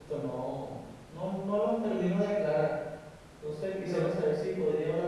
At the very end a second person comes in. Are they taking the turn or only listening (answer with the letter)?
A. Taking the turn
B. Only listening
B